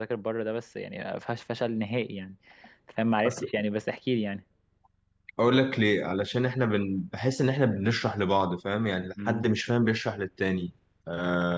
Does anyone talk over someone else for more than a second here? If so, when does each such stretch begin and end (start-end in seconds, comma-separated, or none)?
none